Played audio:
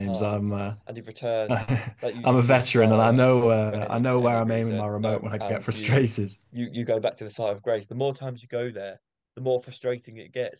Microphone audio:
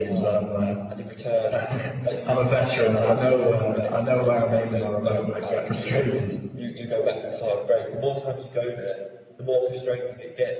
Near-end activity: none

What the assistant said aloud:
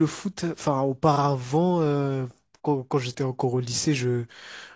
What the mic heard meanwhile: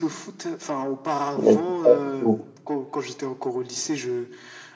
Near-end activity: present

